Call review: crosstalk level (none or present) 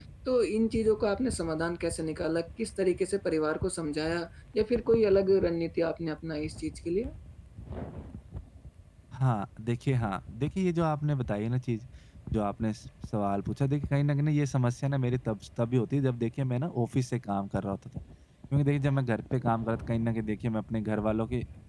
none